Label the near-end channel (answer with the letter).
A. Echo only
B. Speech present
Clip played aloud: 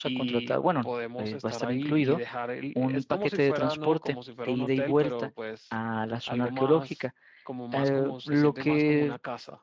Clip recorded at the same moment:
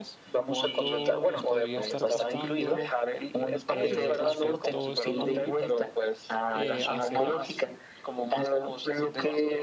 B